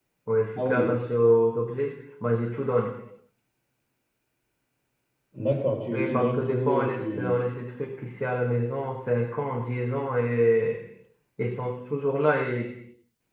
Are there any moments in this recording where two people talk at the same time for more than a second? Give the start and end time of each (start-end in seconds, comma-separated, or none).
5.9-7.3